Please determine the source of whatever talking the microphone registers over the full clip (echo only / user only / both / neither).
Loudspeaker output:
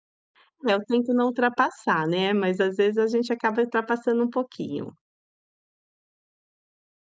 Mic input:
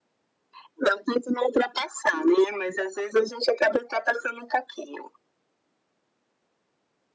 echo only